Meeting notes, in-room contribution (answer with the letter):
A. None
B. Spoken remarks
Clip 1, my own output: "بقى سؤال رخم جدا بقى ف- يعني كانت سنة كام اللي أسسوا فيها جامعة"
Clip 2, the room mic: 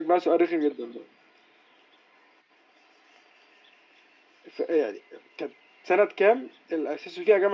A